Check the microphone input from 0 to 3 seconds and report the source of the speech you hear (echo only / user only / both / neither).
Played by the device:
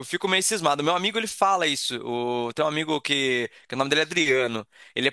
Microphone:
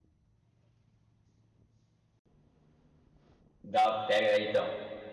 neither